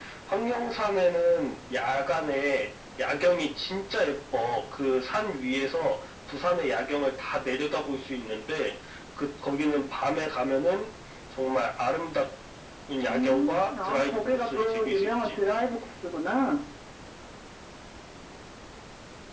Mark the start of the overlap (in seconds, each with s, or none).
13.1 s